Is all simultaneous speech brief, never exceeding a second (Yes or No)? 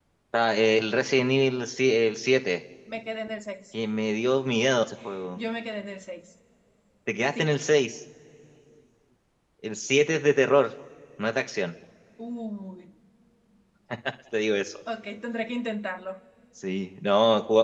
Yes